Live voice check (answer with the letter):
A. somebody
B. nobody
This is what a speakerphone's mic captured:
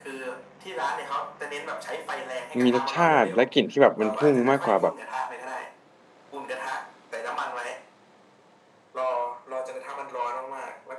A